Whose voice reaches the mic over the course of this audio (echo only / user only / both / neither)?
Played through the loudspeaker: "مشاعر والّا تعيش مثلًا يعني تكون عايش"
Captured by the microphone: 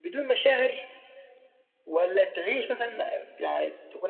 echo only